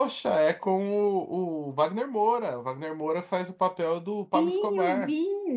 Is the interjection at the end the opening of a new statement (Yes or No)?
Yes